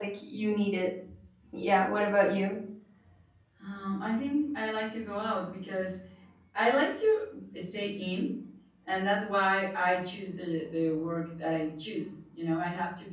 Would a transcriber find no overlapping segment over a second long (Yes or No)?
Yes